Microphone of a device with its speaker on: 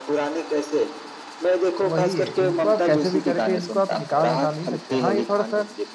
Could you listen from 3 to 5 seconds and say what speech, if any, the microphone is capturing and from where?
both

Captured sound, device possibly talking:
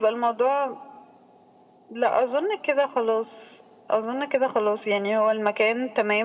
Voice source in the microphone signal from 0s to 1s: echo only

